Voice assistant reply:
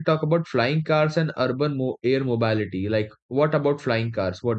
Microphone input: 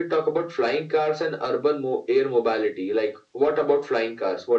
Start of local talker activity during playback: none

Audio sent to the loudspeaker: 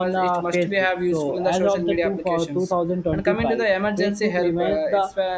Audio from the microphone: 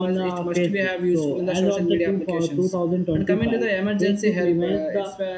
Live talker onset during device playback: none

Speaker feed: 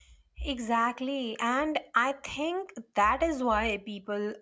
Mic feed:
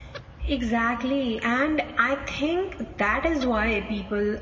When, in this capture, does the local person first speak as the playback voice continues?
none

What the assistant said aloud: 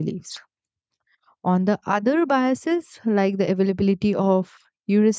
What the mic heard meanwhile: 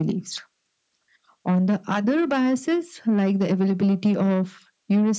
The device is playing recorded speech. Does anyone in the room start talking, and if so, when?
none

